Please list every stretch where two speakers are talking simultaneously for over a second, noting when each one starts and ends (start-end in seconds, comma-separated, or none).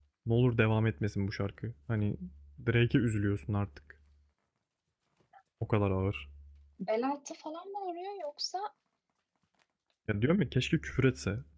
none